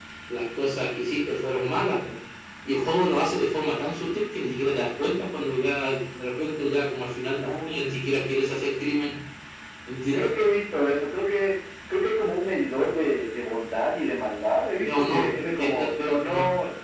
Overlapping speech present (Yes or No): Yes